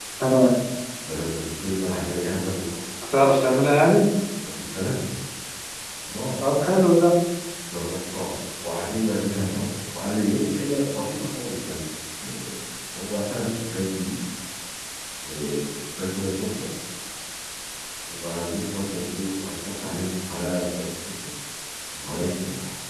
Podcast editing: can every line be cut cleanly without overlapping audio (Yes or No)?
Yes